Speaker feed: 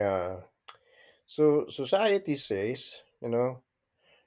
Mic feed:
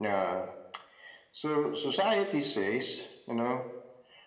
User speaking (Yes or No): No